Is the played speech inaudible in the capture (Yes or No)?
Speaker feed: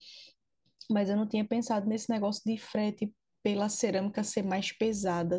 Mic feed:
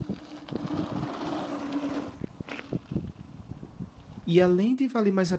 Yes